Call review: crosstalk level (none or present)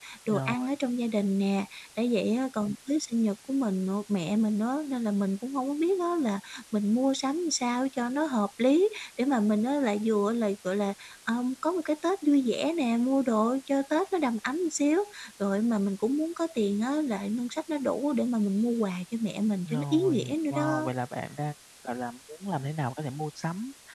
present